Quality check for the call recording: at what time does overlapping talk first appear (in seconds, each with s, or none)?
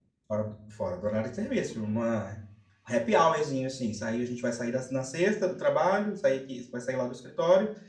none